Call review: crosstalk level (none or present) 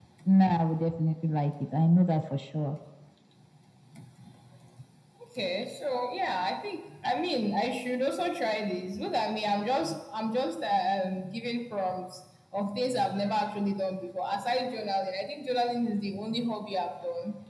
none